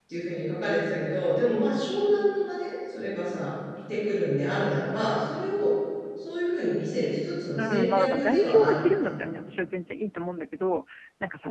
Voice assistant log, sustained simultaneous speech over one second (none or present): present